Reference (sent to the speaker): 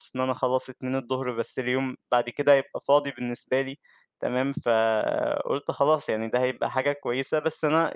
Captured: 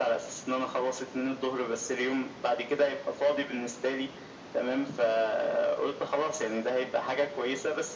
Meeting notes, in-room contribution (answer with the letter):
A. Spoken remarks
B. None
B